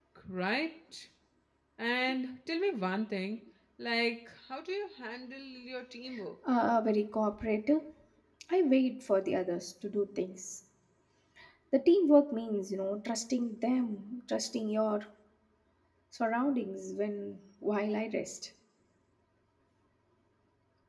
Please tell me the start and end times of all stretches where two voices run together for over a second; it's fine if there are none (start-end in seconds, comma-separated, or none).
none